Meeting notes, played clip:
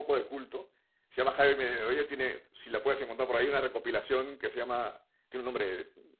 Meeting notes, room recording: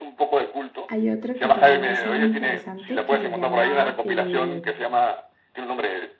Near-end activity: present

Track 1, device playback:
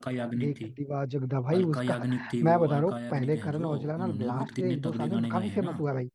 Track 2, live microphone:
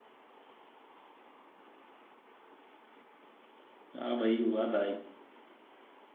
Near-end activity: present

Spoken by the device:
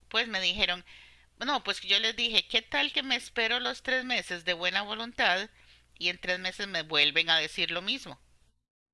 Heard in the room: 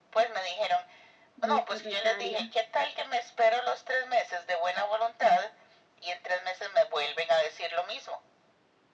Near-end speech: present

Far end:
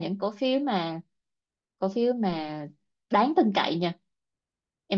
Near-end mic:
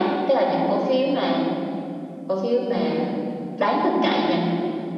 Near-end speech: none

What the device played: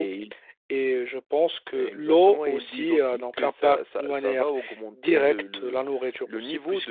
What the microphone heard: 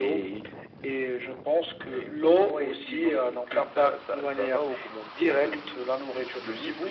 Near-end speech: none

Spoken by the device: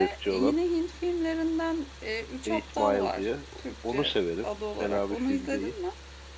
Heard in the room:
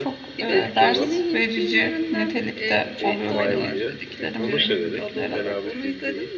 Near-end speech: present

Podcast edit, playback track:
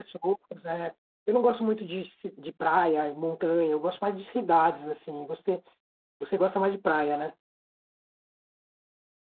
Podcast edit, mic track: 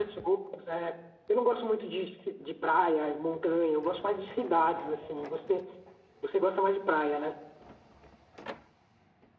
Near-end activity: none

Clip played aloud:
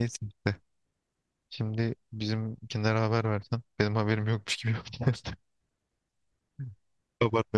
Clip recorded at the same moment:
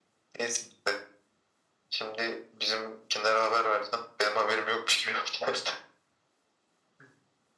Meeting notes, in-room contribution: none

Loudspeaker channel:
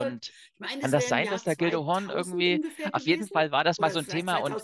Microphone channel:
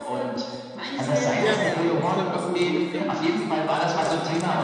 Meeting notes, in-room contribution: present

